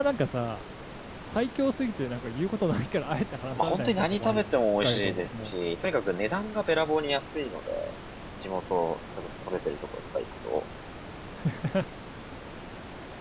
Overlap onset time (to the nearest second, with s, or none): 4 s